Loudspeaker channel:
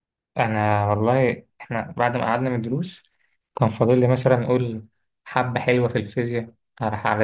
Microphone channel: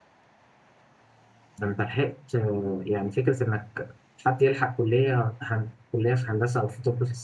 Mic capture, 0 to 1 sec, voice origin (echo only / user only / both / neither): neither